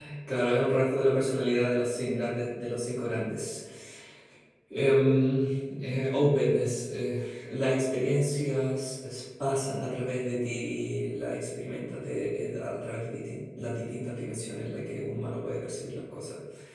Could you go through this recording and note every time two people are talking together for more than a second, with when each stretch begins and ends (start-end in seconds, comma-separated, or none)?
none